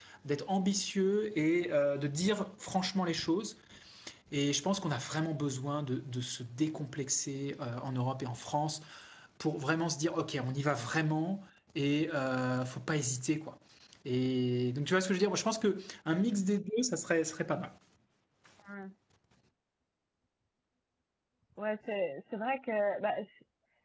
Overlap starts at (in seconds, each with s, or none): none